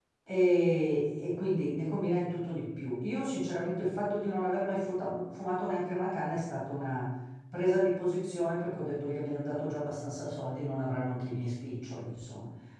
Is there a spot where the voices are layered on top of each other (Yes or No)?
No